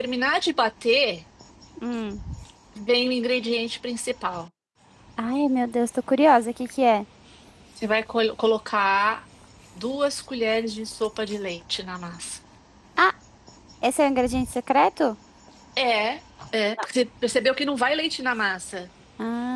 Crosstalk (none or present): none